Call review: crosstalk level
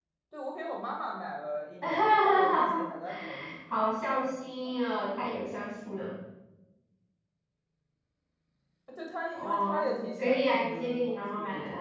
present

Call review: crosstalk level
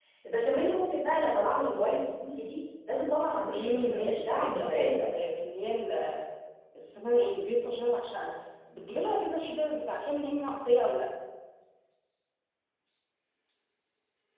present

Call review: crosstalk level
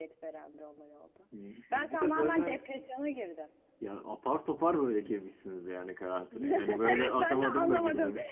present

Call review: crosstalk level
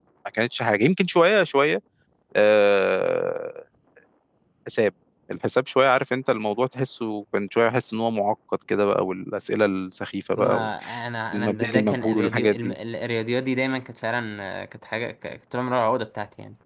present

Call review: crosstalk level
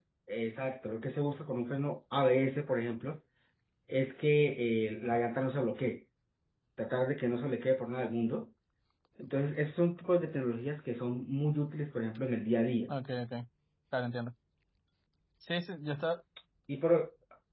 none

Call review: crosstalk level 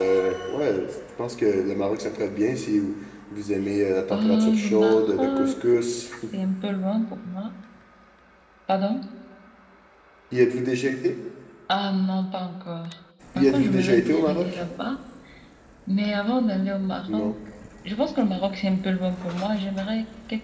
present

